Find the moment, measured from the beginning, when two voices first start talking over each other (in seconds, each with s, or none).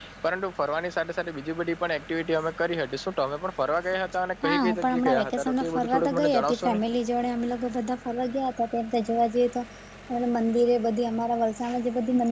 4.4 s